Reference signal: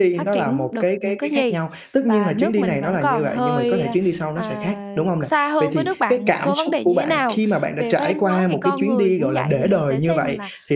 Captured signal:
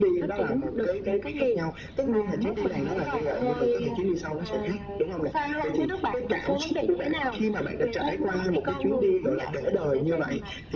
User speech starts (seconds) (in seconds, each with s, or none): none